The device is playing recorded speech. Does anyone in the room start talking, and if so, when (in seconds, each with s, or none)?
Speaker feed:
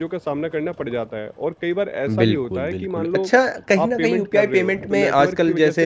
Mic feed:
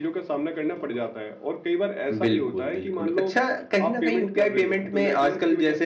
none